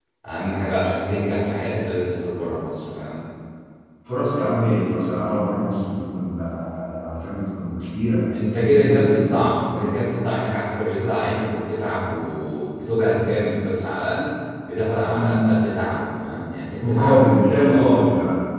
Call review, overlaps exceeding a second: present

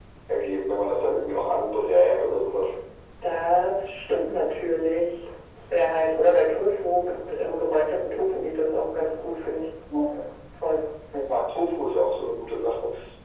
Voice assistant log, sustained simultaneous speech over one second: none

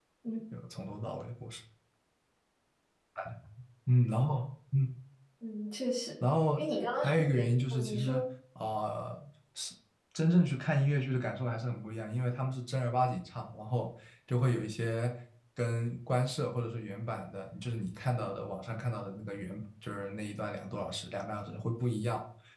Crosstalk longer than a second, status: present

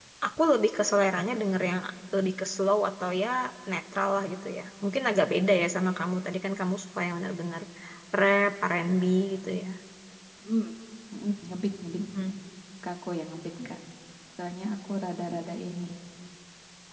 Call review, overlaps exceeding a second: none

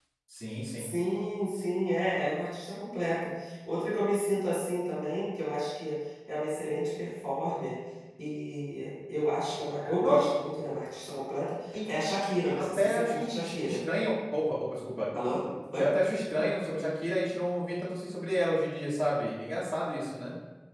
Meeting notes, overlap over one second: present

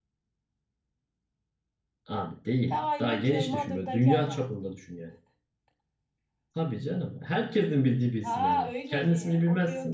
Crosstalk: present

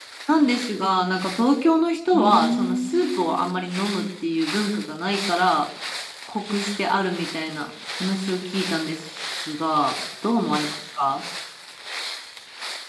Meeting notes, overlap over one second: present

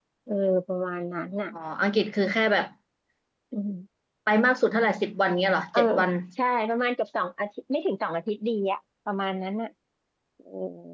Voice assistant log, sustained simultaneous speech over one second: none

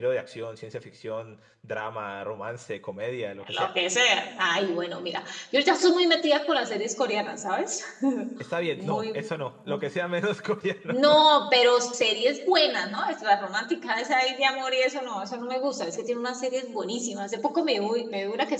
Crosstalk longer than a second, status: none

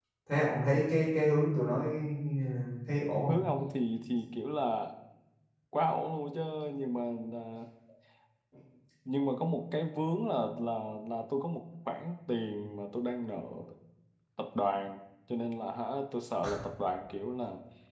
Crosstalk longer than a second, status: none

